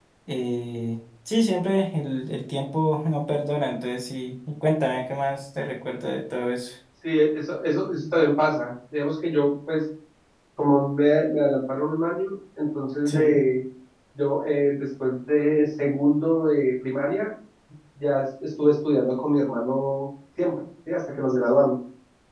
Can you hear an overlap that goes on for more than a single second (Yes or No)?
No